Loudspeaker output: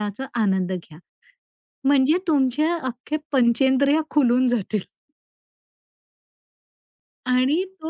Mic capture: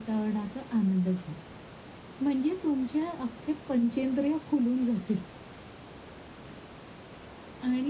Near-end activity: none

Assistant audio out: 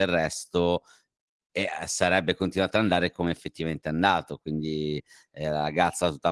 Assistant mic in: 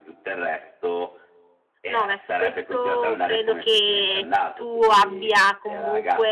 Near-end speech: present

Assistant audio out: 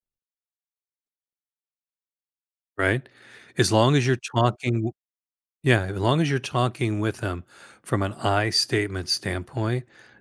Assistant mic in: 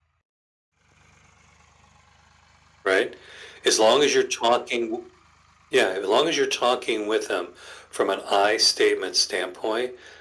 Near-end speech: none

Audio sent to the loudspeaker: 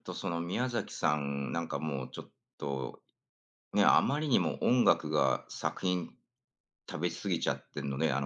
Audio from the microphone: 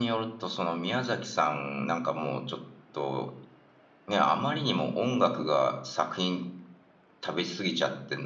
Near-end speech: none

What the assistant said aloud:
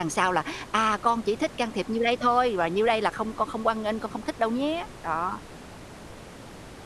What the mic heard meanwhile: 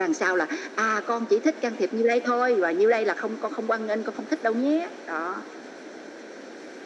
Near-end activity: none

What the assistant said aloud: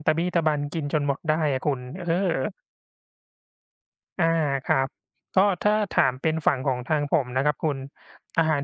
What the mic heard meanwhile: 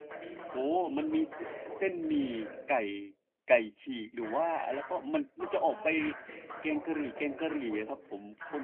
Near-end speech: present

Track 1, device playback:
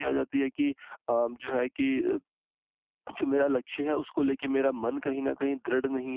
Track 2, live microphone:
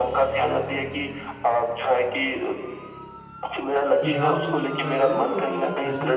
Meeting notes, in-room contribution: present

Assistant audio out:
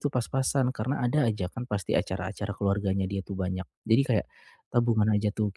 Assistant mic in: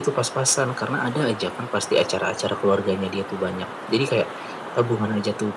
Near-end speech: none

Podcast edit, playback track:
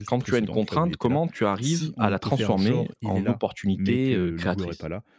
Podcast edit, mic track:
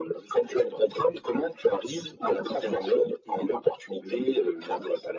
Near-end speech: none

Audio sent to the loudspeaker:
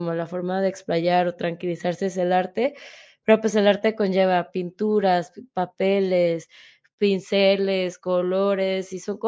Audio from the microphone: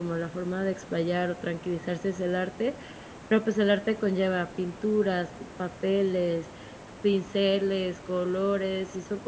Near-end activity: none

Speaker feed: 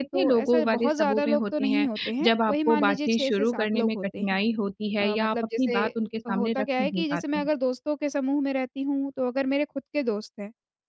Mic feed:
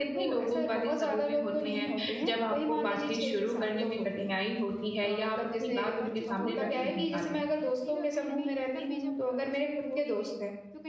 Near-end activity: present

